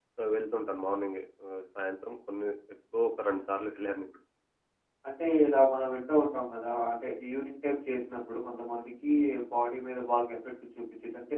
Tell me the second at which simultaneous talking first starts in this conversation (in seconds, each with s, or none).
none